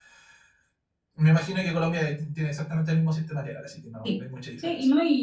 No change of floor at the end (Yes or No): No